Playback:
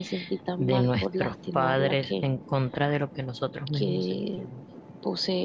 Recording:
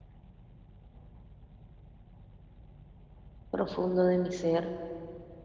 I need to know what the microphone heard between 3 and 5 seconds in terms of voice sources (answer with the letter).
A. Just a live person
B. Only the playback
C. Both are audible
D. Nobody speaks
A